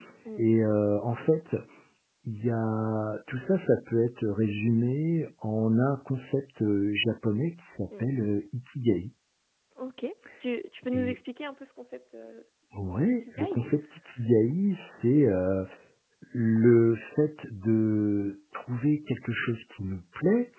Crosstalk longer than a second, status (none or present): none